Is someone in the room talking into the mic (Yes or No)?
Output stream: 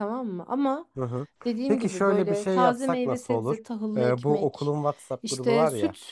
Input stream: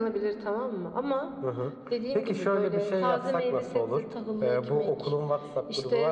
No